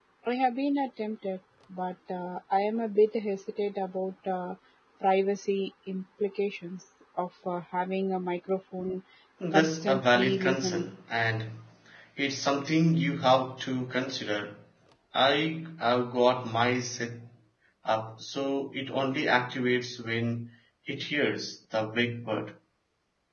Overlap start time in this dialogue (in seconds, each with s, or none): 9.5 s